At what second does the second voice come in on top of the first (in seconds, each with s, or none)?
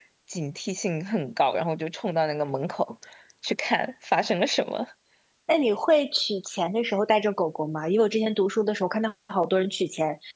none